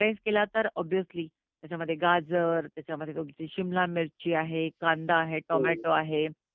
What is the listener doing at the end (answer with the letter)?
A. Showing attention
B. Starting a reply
A